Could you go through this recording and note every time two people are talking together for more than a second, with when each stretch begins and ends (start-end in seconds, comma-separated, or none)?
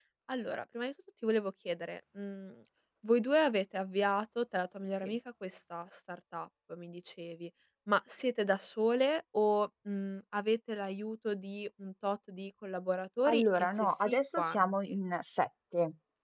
13.3-15.0